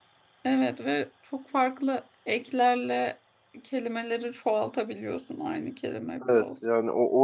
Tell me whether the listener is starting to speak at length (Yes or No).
Yes